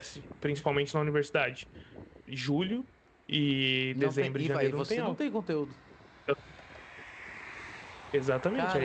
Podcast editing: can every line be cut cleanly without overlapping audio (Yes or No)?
No